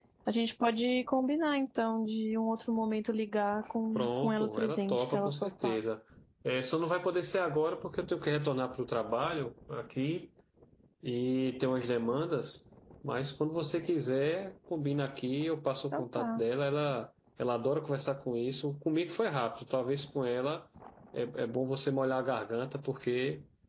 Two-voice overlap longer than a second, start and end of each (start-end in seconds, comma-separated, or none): 4.0-5.8